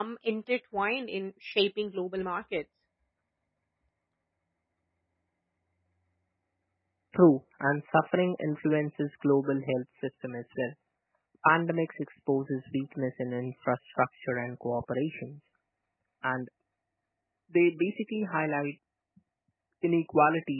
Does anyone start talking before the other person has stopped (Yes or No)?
No